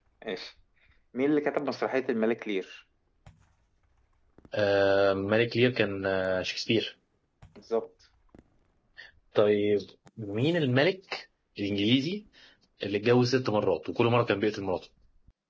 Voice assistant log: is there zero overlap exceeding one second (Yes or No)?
Yes